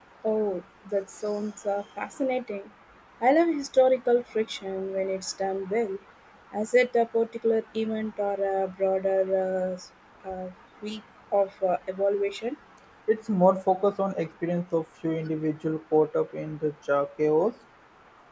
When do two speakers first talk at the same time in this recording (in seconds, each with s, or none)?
none